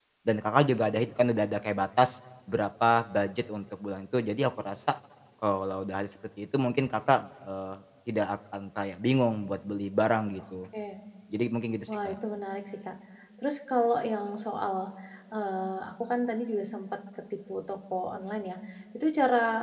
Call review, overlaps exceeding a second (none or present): none